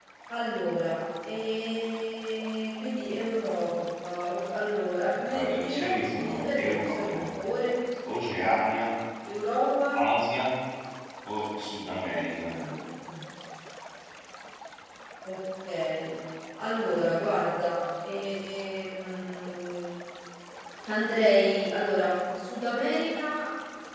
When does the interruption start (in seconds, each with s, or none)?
5.3 s